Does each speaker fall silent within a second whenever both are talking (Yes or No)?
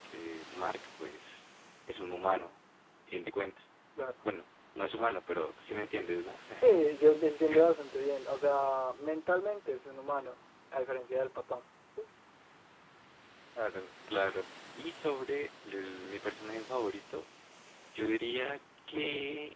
Yes